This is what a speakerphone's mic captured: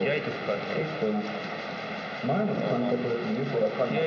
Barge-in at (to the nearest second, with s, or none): none